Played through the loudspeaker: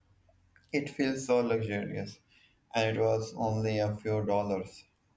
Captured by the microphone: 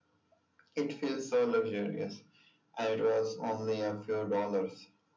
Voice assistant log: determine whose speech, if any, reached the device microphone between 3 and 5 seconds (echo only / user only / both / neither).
echo only